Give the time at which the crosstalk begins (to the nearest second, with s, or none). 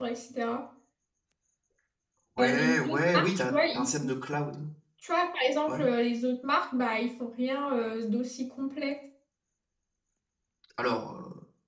2 s